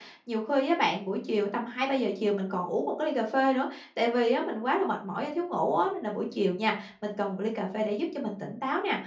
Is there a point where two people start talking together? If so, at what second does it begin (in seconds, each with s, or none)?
none